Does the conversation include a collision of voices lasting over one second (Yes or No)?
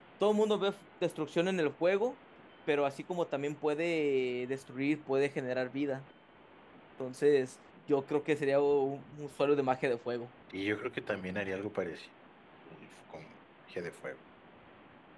No